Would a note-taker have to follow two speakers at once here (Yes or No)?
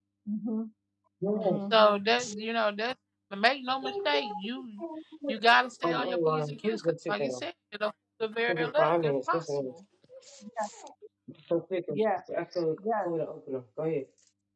Yes